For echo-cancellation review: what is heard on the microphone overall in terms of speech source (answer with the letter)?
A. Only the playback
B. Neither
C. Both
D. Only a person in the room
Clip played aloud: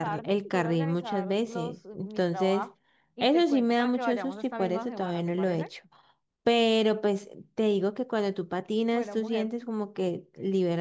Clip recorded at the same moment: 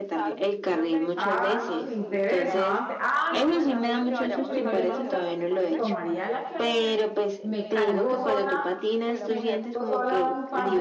C